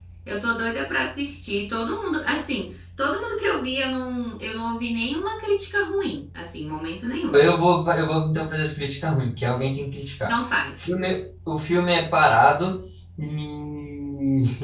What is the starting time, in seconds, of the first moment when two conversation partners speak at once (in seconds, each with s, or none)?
none